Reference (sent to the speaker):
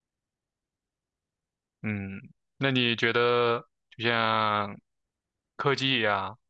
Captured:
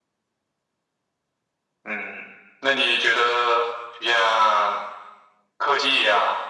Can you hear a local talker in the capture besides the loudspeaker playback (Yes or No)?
No